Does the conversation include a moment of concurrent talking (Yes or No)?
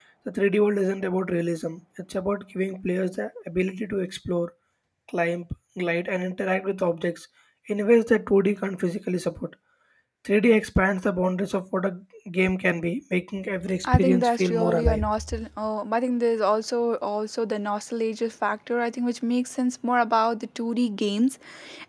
Yes